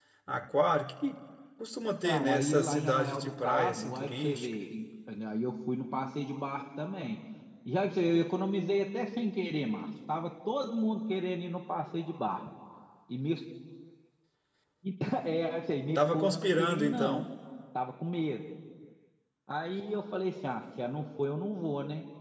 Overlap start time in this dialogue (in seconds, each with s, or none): 2.0 s